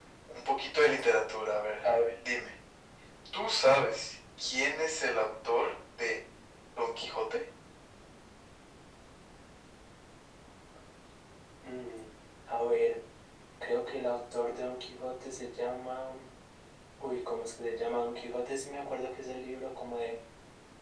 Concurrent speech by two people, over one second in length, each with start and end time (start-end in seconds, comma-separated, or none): none